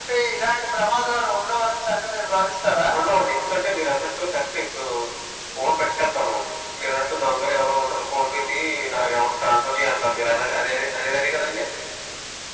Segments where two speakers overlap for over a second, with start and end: none

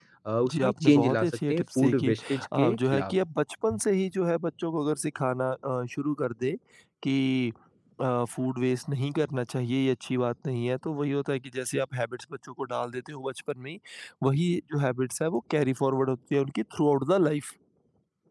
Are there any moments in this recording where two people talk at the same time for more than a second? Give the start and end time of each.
0.5-3.1

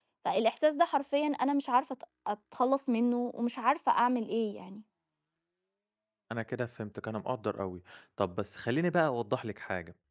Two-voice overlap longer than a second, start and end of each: none

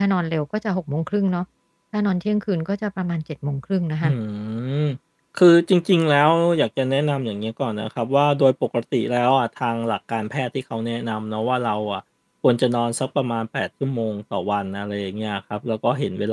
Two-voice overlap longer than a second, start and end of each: none

